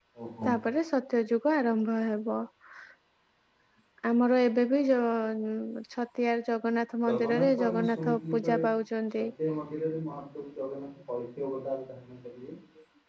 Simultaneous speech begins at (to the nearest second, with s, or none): 7 s